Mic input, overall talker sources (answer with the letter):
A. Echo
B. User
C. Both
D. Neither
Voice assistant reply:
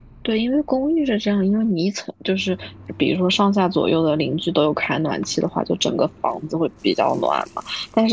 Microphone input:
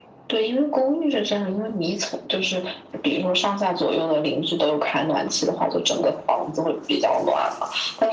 A